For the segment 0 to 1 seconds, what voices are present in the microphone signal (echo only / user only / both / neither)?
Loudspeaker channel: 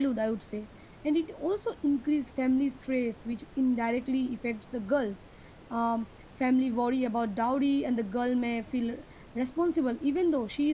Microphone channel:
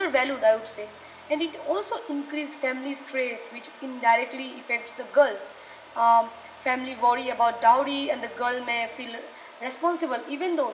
echo only